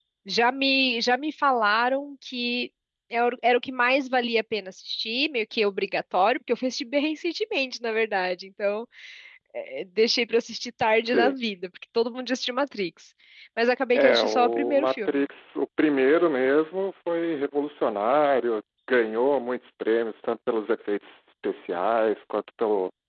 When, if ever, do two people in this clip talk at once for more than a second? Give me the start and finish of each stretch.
13.9-15.2

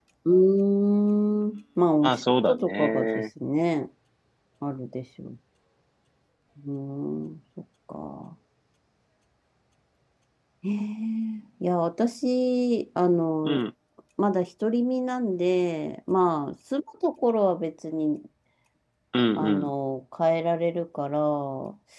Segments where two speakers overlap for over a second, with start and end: 2.0-3.2

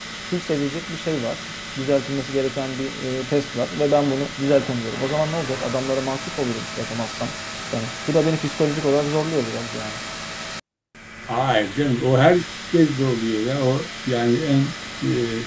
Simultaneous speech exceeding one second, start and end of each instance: none

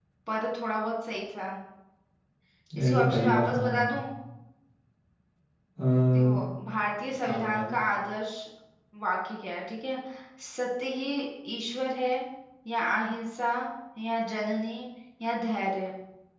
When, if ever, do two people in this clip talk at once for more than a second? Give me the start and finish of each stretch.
2.8-4.0

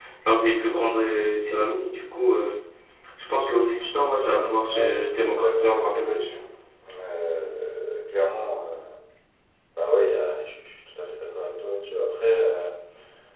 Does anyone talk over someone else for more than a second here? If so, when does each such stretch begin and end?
4.2-6.3

